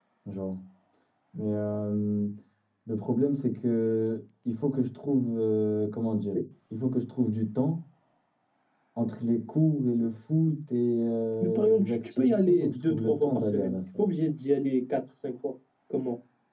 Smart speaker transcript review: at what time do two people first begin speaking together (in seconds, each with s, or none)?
11.4 s